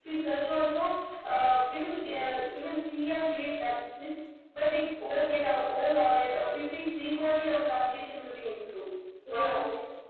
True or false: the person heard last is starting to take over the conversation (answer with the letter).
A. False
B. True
B